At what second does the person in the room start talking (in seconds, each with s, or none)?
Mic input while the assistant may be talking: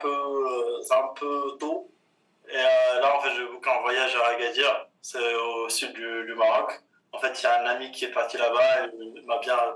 none